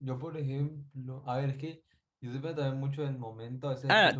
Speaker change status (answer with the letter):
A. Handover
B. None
A